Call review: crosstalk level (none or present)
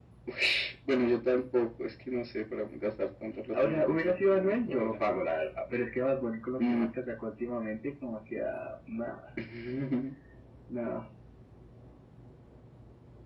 present